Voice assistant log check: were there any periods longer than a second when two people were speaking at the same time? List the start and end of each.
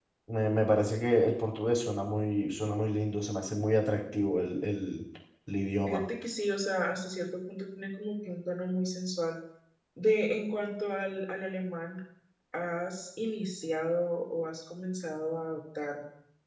none

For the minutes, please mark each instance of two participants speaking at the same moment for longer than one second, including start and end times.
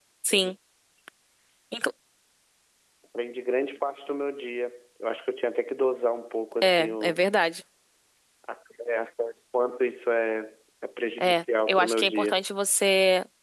11.2-12.4

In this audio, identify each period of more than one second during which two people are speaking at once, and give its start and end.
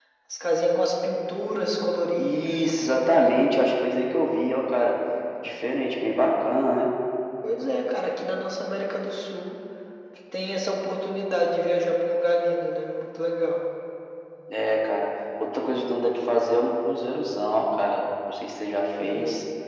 2.2-3.5

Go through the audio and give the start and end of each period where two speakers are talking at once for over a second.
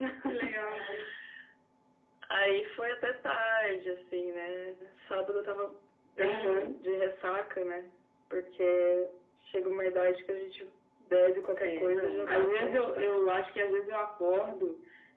11.6-13.1

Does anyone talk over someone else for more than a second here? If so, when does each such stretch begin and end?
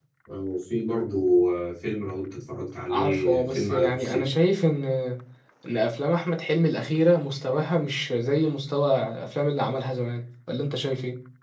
2.9-4.3

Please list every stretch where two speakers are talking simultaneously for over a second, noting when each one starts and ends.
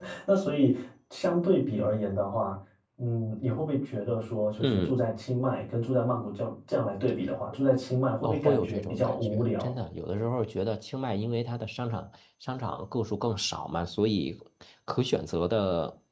8.2-9.7

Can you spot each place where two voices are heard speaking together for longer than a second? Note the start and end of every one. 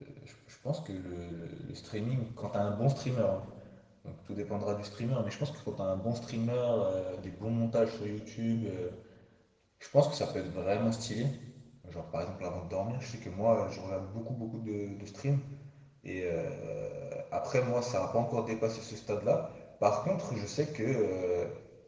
none

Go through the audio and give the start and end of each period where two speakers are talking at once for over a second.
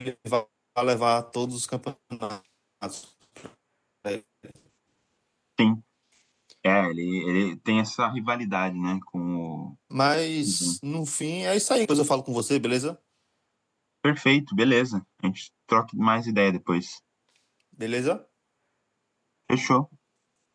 none

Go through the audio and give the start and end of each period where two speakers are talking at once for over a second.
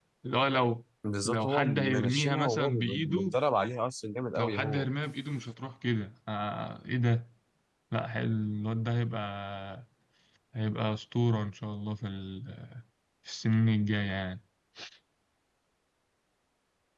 1.2-3.3

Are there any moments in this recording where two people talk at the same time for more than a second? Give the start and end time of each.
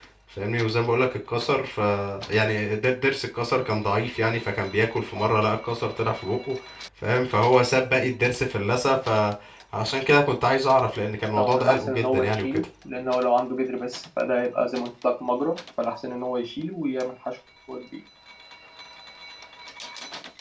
11.4-12.6

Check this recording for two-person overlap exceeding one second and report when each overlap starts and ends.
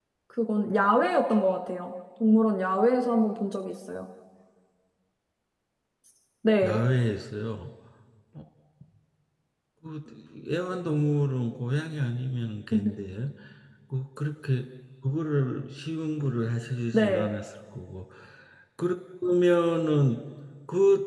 none

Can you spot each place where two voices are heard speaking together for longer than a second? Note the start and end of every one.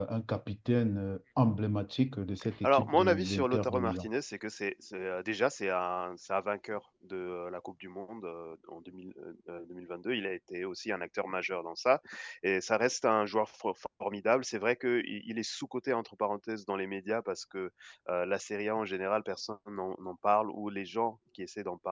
2.6-4.1

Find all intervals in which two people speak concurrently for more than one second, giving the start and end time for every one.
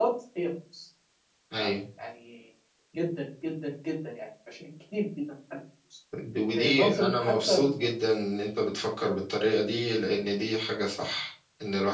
6.5-7.9

